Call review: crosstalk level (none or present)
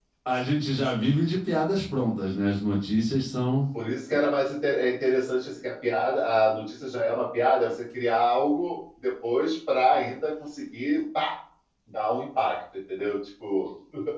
none